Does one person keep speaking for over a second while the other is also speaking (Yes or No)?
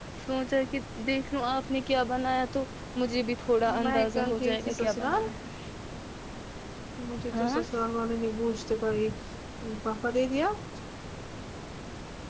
Yes